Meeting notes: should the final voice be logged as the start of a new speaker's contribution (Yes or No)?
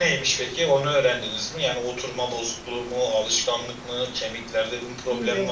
Yes